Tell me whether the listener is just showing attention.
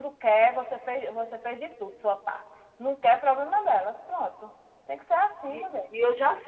No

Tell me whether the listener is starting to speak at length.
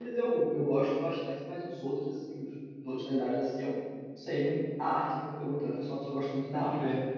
Yes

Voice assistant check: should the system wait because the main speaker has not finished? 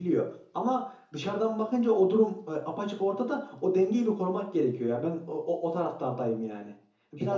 Yes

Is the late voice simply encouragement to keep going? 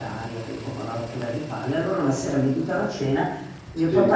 Yes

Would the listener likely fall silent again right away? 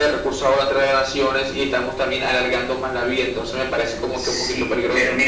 No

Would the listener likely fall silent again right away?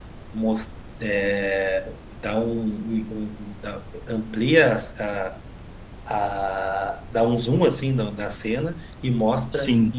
Yes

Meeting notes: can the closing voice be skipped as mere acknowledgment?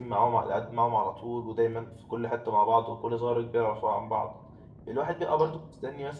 Yes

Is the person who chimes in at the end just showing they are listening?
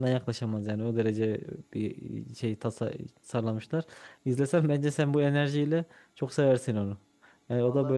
No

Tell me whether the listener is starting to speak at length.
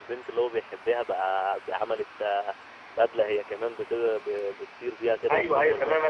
Yes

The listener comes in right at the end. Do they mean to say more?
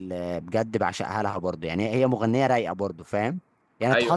No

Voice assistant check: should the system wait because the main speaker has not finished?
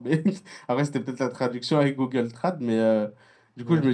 Yes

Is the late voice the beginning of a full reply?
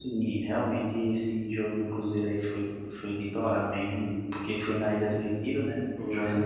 No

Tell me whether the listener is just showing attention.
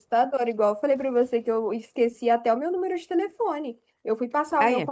Yes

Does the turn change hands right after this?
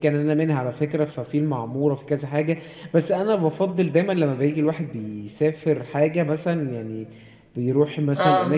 No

